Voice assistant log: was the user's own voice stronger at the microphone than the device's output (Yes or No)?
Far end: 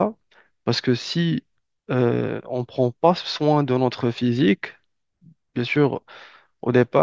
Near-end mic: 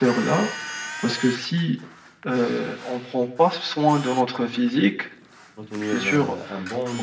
No